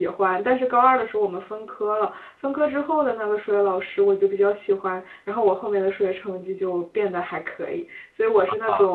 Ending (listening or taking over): taking over